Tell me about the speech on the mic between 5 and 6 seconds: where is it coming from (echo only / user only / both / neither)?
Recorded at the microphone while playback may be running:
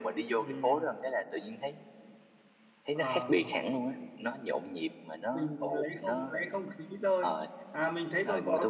echo only